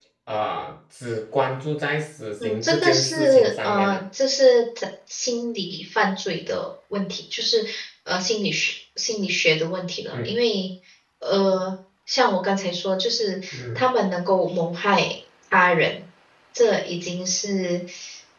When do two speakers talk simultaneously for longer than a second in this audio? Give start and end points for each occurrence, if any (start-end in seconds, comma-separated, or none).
2.4-4.0